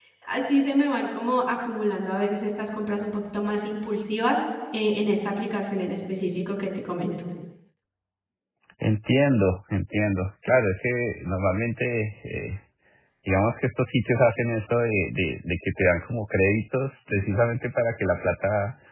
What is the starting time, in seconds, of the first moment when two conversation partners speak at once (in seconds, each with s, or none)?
none